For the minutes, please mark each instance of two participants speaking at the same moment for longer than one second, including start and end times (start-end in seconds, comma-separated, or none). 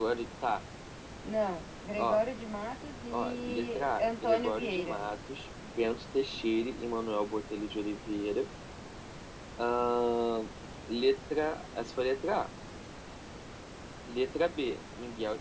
3.1-5.0